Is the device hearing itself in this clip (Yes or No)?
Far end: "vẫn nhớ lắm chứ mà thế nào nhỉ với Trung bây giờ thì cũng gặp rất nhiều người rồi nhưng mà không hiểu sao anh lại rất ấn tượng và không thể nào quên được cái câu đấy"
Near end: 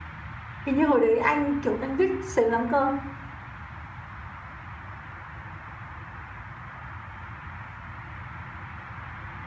No